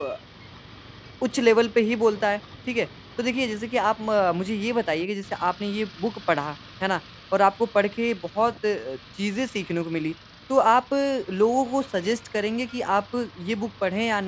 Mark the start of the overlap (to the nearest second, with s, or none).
none